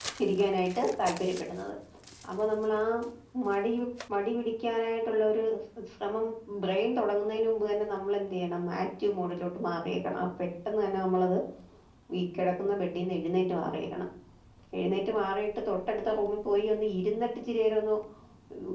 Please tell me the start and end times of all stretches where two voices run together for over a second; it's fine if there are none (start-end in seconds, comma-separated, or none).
none